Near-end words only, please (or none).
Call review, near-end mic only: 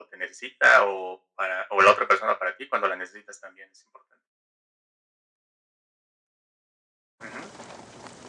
none